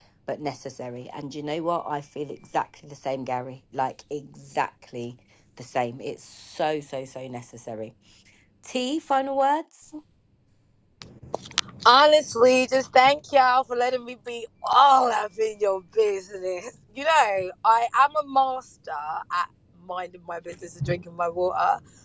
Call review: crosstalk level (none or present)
none